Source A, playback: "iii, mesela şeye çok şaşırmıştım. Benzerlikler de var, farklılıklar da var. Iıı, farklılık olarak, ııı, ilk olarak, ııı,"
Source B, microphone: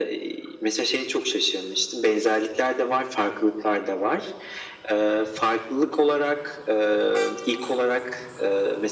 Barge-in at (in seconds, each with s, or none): none